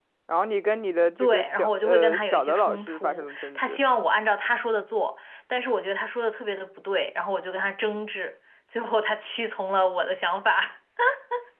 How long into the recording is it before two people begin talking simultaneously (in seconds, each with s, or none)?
1.2 s